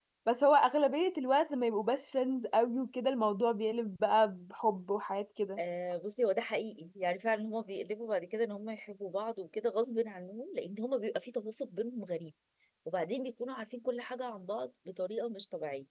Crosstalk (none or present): none